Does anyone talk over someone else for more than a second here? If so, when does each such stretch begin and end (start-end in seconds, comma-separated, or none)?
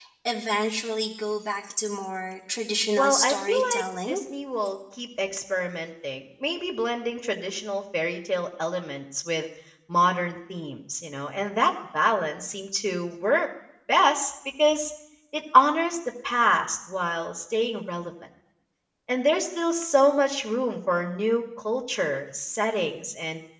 3.0-4.2